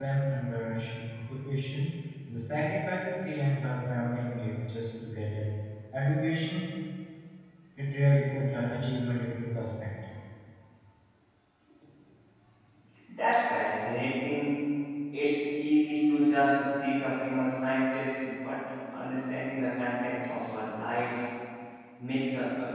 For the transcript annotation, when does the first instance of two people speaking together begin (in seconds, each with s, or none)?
none